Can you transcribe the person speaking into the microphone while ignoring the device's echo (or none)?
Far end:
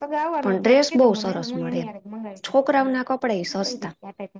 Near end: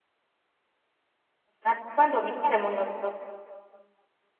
હા તો વાંધો નહી ક્યારે મંગાવું